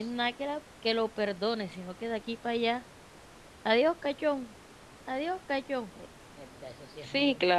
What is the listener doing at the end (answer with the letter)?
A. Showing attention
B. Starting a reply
B